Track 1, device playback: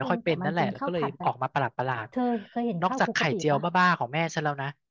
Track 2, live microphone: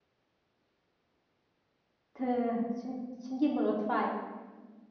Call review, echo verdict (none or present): none